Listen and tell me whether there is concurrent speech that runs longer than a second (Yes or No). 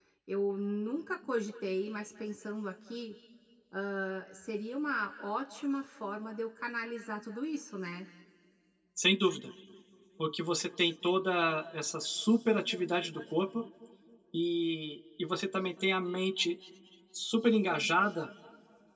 No